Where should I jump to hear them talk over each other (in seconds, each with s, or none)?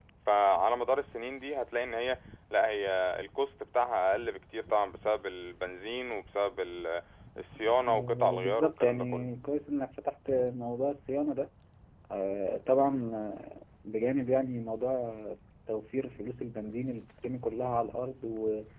7.9 s